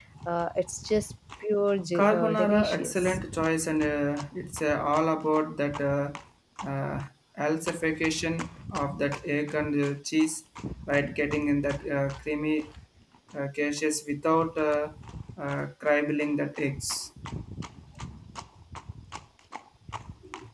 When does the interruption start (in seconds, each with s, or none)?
1.9 s